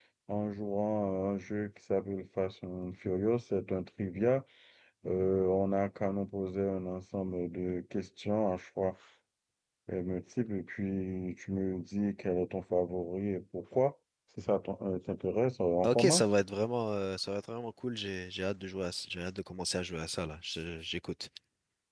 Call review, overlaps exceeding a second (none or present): none